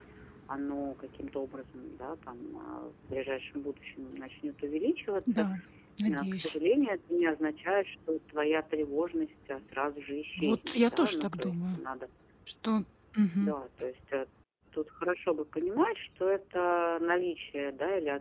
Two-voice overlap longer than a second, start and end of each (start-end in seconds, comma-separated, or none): 10.4-11.8